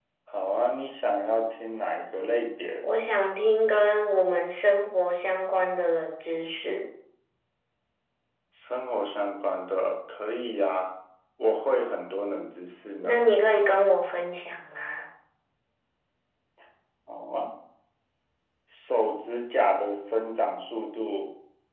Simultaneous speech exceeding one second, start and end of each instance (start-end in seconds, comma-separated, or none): none